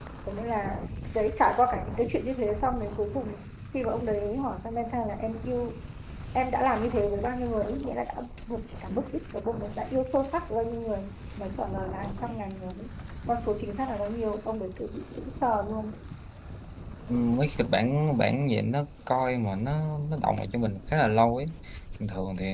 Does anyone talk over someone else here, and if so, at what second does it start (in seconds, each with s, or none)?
none